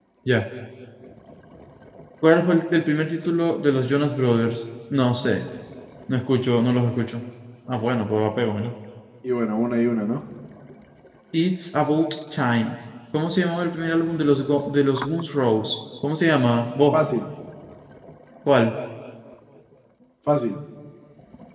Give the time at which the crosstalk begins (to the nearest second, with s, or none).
none